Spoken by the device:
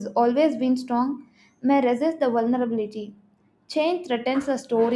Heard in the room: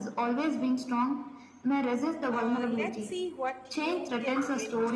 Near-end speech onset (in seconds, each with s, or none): 2.3 s